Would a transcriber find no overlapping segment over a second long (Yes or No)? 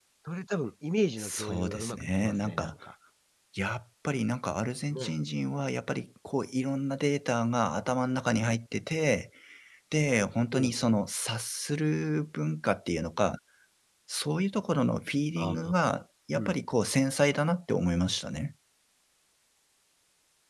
No